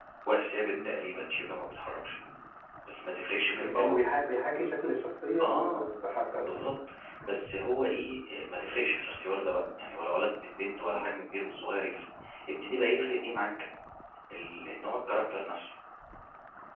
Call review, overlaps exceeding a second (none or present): none